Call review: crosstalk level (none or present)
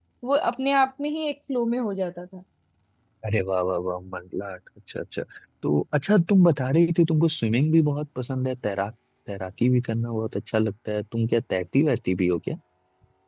none